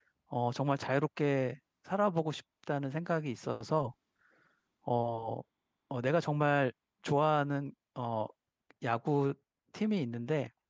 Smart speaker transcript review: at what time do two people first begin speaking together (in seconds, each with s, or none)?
none